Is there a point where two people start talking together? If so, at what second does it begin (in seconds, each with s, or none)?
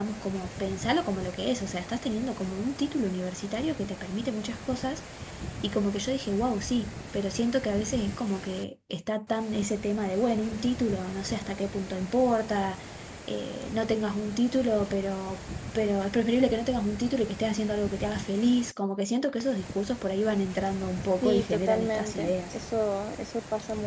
21.2 s